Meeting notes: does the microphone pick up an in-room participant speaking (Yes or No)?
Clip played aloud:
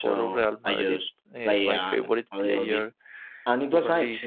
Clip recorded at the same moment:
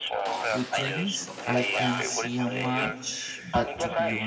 Yes